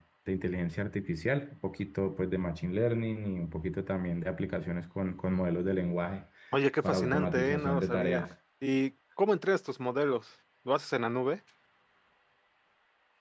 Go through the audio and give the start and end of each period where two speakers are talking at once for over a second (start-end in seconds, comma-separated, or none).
6.8-8.3